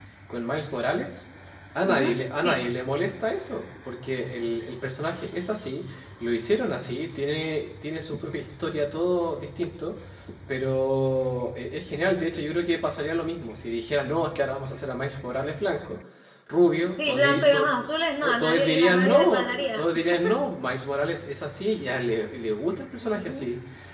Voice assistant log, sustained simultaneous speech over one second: present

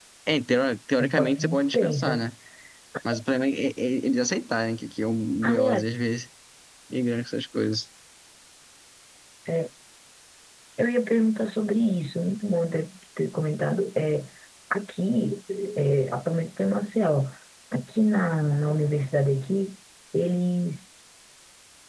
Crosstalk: present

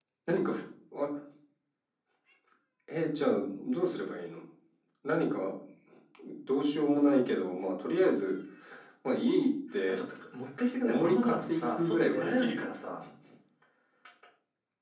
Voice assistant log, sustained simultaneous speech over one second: present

